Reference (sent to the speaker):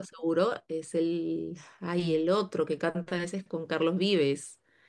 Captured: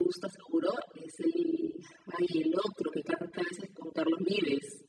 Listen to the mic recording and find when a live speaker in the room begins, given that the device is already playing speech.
none

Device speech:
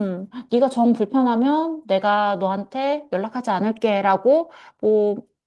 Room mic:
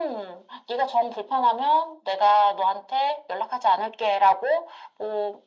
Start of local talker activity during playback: none

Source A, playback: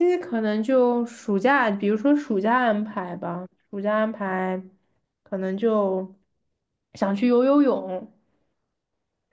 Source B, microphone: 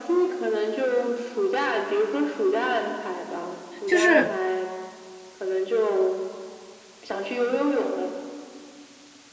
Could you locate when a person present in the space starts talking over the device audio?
4 s

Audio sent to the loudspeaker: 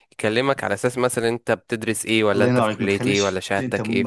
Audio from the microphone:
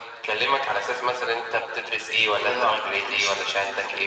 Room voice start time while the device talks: none

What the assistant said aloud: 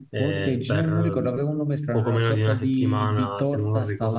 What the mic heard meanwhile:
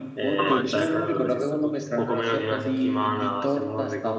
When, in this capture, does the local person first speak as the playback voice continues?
0 s

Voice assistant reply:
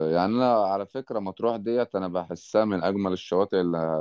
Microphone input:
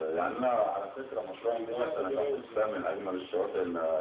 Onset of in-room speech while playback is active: 1 s

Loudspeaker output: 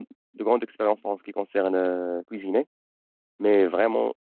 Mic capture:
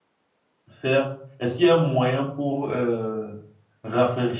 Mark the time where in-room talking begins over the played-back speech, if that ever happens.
1 s

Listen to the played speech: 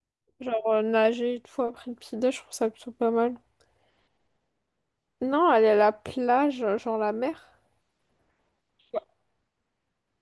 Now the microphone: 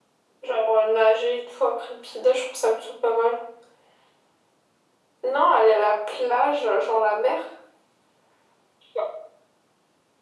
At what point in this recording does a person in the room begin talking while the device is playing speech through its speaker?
none

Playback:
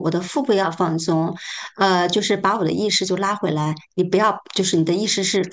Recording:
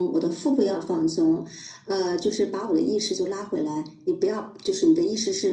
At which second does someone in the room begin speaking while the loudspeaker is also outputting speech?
none

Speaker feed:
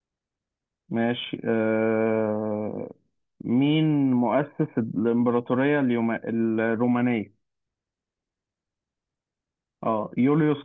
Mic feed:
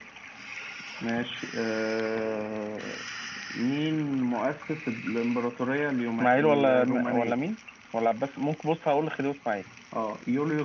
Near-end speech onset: 6 s

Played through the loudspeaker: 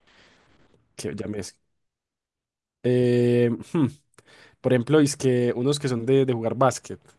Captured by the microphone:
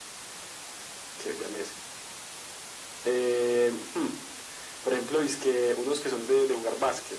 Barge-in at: none

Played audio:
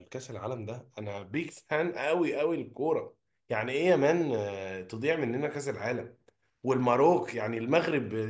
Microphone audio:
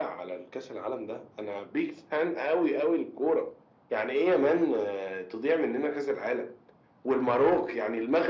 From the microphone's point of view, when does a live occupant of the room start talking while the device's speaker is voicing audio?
none

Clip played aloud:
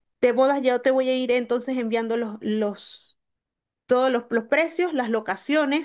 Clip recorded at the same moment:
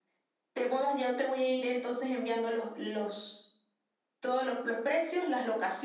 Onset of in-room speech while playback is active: none

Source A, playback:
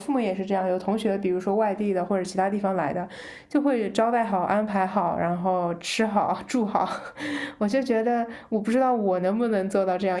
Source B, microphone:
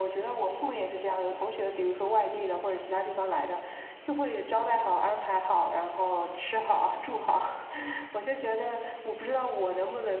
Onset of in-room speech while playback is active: none

